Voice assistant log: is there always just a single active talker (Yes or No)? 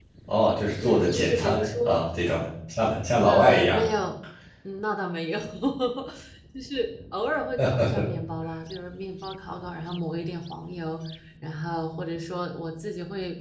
No